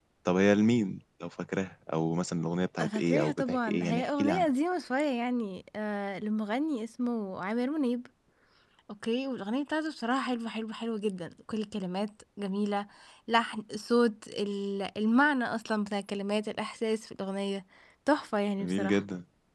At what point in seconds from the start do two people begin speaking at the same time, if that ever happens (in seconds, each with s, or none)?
2.8 s